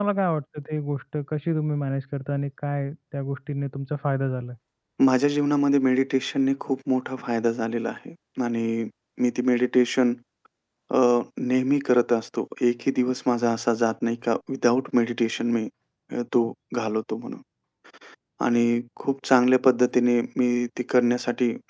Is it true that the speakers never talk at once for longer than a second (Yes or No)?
Yes